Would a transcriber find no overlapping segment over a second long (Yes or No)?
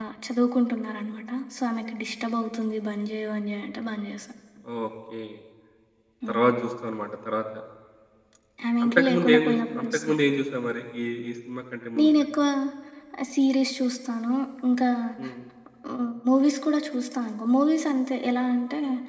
No